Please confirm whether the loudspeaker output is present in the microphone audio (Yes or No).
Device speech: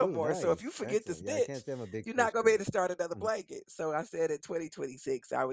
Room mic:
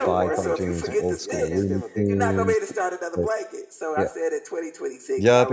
Yes